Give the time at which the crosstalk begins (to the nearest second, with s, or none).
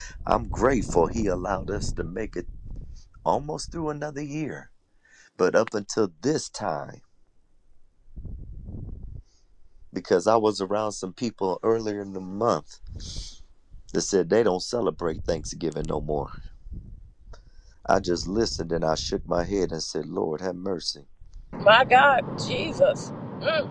none